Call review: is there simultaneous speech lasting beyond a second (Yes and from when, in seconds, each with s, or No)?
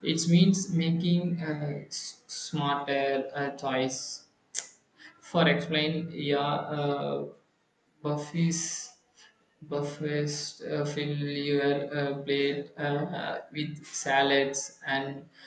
No